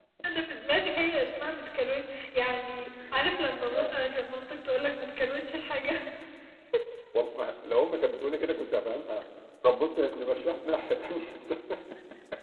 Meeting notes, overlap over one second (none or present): none